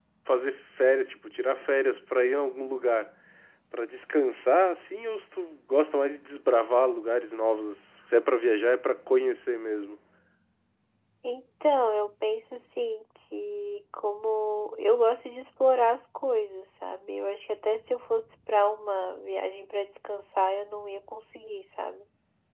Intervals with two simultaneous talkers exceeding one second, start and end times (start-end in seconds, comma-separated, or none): none